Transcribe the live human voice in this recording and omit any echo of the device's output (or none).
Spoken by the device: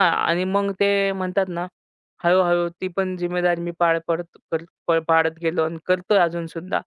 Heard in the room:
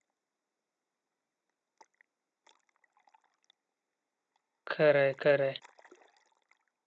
खरं आहे, खरं आहे.